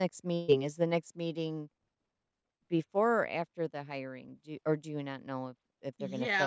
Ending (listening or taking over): taking over